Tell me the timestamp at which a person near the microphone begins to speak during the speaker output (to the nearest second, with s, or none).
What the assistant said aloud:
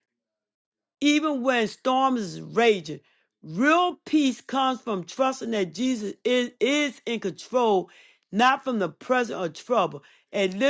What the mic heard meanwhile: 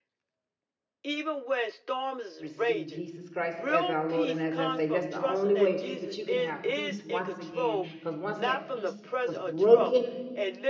2 s